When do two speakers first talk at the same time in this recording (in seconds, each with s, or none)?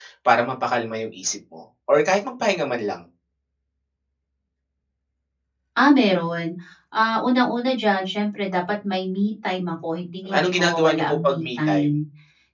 10.2 s